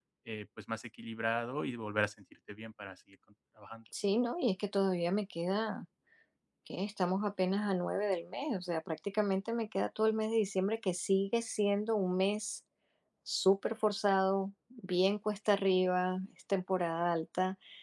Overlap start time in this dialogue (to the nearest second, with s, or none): none